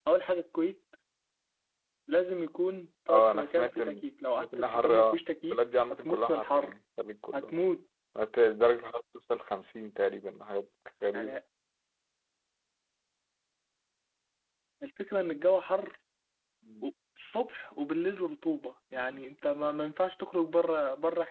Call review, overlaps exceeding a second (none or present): present